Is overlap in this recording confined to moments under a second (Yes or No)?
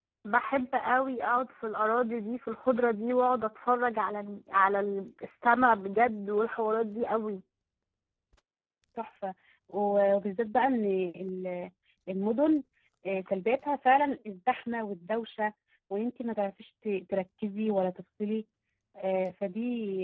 Yes